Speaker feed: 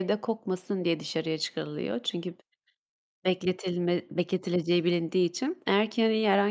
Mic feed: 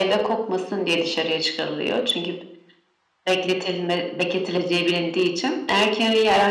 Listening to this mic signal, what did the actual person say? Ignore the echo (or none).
none